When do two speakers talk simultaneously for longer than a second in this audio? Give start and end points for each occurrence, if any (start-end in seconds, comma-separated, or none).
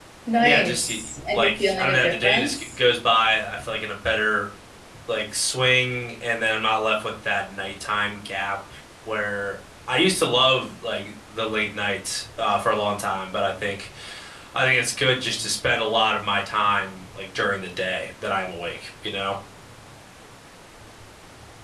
1.3-2.6